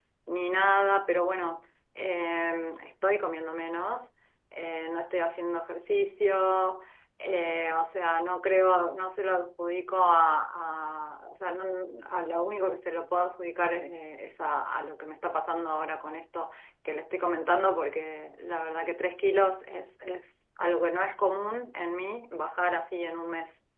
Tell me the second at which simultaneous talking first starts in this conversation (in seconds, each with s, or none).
none